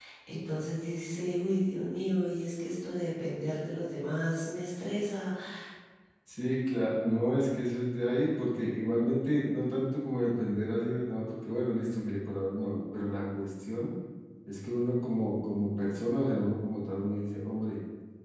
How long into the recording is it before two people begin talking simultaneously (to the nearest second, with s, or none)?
none